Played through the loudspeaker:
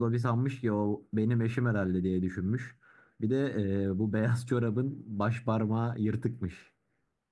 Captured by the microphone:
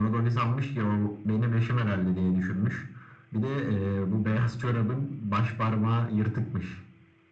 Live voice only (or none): none